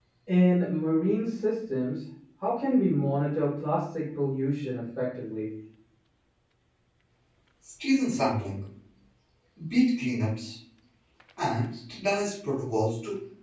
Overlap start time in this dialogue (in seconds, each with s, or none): none